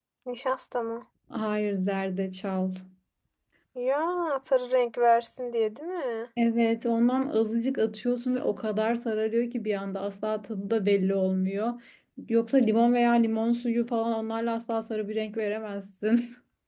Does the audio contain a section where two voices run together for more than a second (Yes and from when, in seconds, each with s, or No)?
No